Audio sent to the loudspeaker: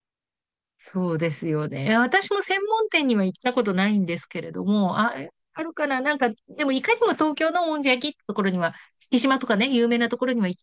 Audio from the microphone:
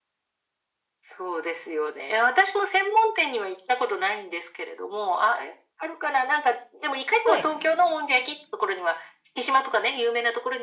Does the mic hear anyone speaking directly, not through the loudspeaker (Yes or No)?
Yes